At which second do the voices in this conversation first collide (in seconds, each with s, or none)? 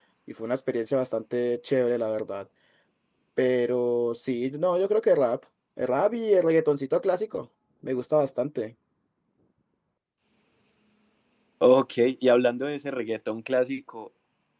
none